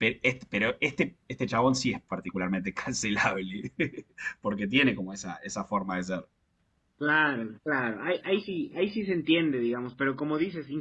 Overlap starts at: none

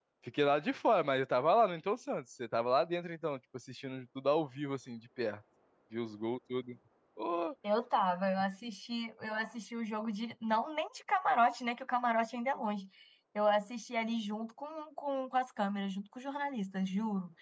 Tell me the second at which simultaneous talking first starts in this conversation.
none

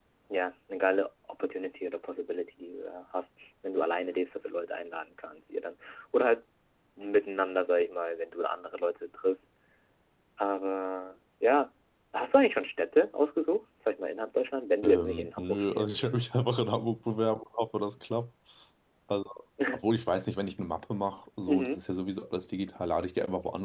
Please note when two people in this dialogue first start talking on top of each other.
15 s

